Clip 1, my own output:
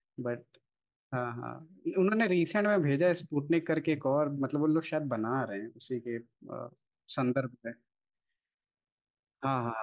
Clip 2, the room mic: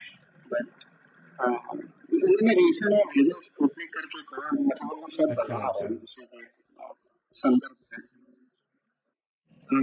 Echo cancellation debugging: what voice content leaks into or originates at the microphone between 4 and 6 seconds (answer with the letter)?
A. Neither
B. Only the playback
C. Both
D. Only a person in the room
C